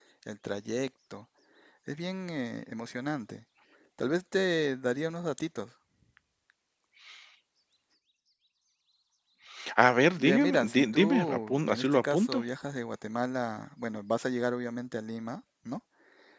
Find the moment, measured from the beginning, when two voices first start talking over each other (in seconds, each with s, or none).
10.2 s